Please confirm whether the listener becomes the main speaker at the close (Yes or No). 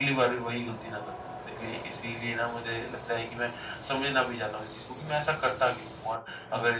No